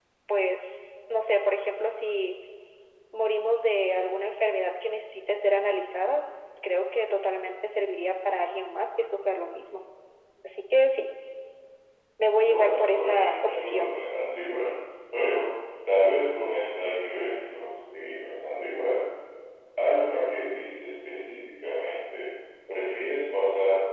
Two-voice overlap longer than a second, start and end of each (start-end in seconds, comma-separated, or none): 12.4-14.0